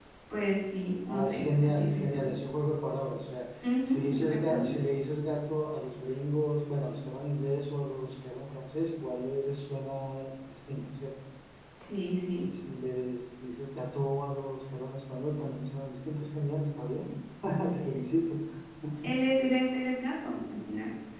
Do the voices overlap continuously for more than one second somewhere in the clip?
Yes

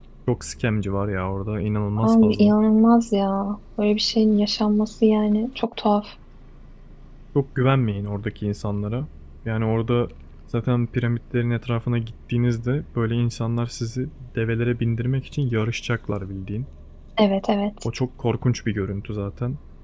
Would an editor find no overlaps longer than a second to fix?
Yes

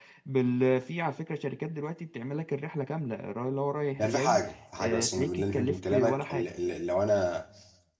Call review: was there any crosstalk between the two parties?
Yes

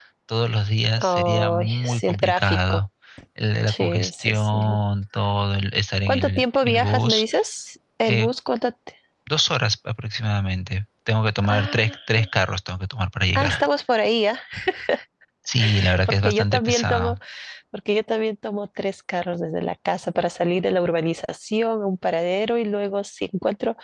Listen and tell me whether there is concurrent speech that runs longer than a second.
Yes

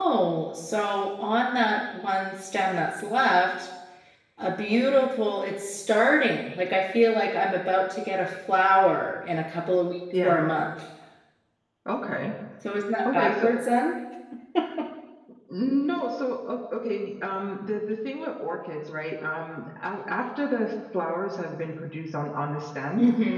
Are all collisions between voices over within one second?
Yes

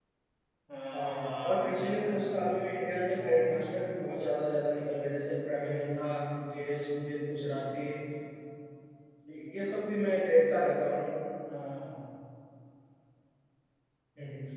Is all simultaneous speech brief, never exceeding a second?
No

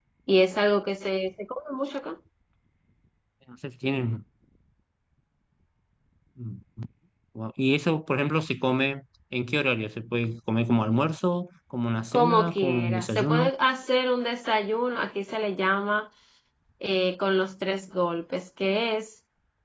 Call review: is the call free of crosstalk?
No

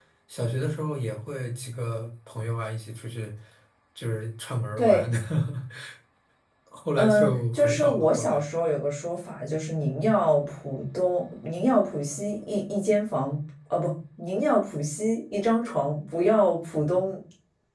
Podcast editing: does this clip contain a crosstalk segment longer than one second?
Yes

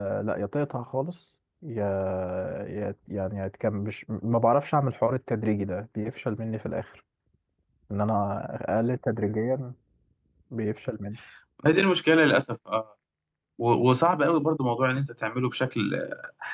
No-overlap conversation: Yes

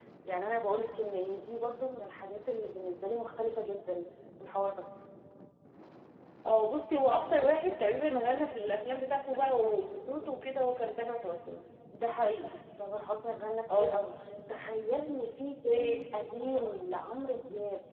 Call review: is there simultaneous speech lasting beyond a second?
No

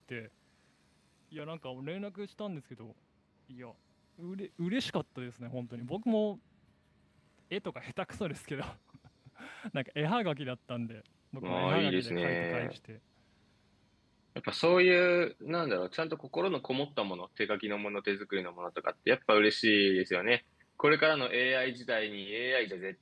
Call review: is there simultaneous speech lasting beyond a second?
Yes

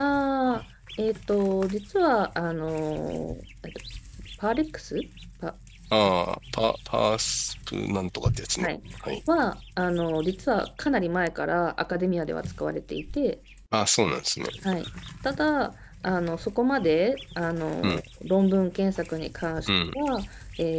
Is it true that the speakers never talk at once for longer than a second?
Yes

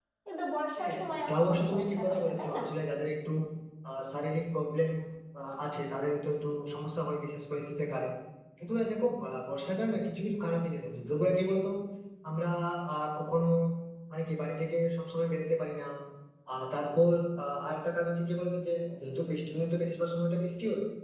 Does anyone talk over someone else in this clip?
Yes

